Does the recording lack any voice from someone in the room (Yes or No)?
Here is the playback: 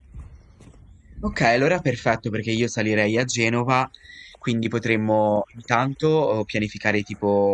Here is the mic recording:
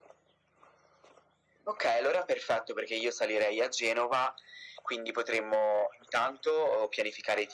Yes